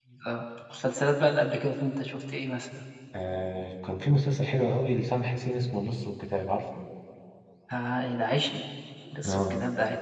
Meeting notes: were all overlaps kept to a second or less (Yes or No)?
Yes